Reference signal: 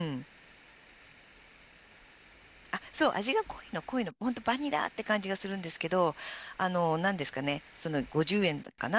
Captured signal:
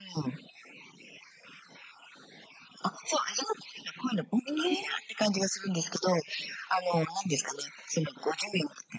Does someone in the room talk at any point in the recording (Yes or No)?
Yes